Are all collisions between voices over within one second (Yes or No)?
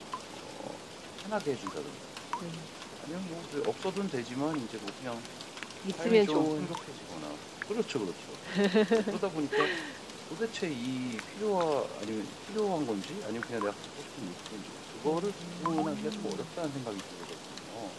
No